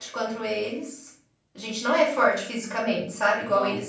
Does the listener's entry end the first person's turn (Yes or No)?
No